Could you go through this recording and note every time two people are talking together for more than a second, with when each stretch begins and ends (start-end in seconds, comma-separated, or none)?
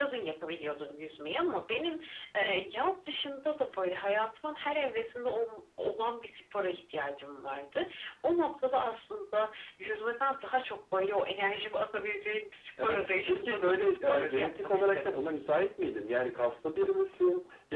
12.8-15.0